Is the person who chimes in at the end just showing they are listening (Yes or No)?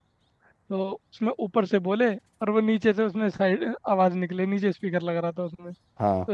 Yes